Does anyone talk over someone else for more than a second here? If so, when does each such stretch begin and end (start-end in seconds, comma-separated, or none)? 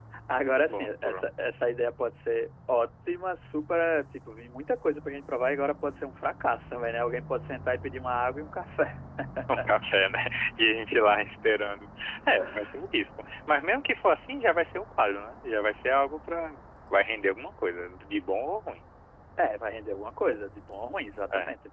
none